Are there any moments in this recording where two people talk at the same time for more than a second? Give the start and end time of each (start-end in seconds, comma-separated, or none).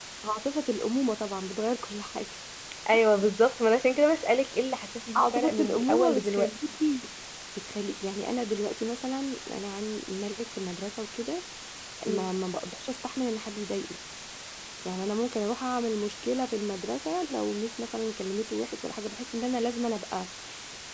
5.2-6.5